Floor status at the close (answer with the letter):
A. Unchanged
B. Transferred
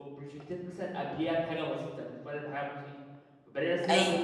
A